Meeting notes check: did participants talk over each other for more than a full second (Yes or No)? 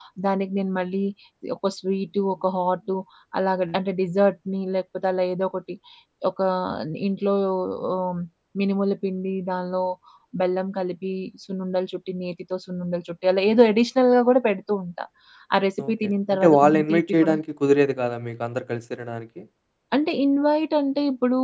Yes